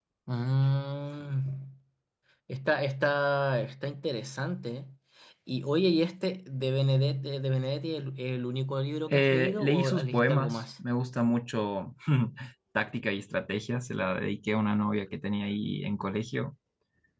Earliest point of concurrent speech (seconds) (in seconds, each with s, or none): 9.1 s